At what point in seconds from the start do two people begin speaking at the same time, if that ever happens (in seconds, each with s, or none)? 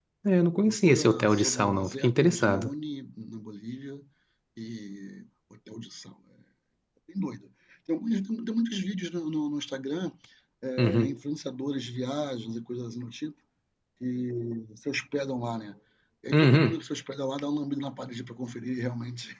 0.7 s